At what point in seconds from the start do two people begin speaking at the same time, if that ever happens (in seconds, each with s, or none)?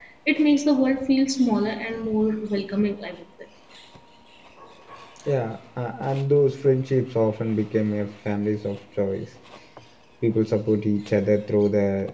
none